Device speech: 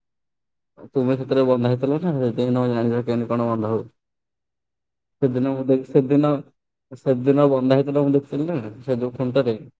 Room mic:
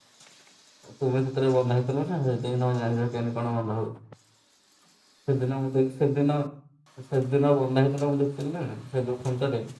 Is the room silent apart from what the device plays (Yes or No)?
Yes